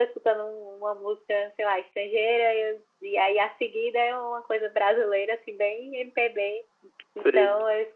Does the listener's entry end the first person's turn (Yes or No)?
No